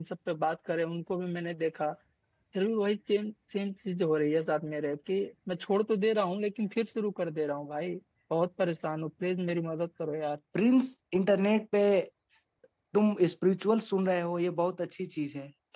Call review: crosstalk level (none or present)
none